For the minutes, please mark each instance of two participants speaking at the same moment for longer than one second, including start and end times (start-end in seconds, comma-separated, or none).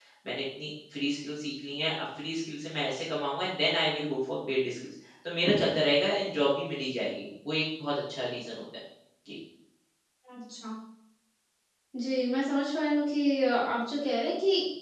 none